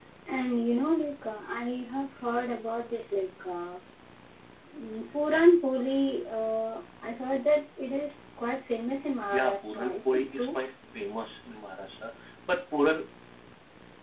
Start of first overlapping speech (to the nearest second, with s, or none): 9 s